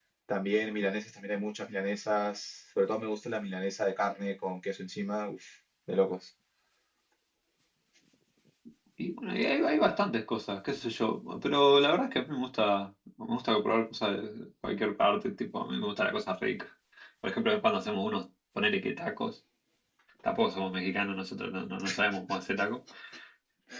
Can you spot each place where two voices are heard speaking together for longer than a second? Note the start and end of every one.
none

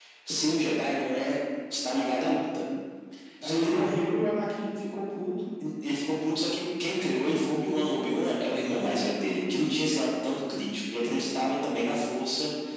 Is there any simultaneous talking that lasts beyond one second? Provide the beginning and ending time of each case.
none

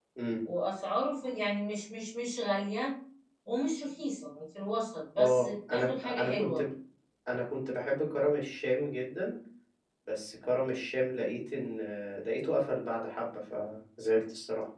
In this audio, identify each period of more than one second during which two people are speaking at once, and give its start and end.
5.2-6.6

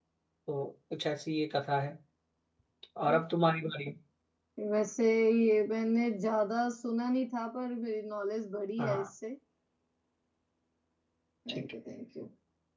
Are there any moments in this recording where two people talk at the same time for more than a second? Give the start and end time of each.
none

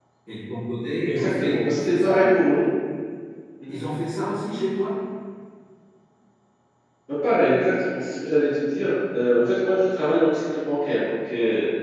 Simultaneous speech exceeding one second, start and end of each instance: 1.1-2.3

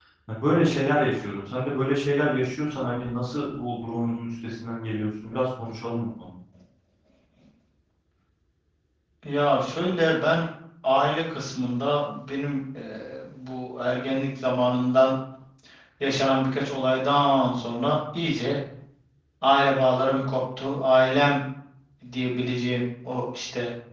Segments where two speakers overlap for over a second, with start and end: none

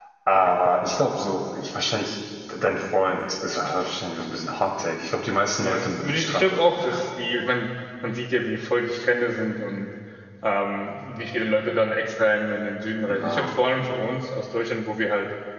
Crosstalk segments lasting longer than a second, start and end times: 5.6-7.0

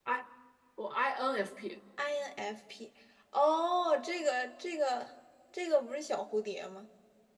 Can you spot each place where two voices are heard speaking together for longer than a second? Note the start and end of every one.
none

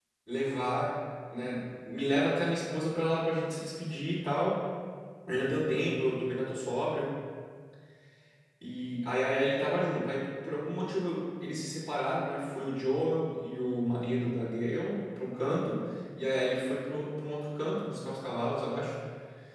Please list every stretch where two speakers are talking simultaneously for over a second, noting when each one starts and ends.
none

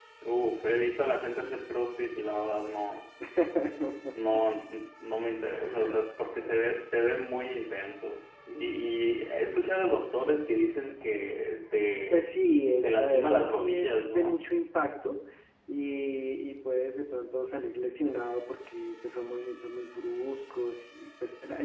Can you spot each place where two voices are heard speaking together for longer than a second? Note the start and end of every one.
12.8-14.4

